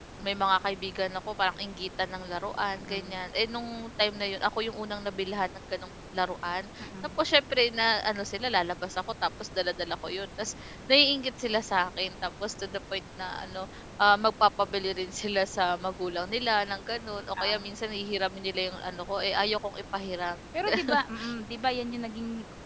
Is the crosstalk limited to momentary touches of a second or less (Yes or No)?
Yes